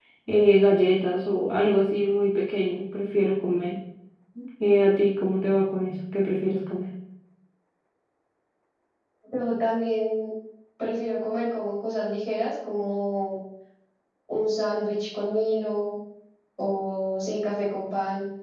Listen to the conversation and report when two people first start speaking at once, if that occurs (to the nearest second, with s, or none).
none